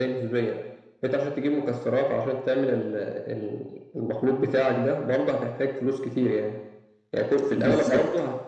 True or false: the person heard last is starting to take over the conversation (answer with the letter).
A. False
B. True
A